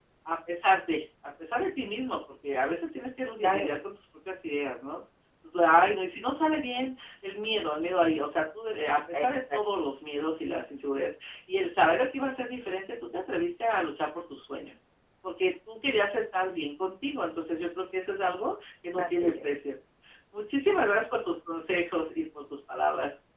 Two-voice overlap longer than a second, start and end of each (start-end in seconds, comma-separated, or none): none